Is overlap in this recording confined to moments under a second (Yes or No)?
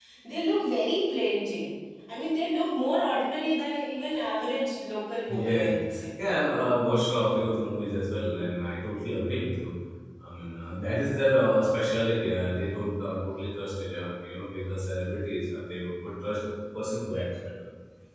Yes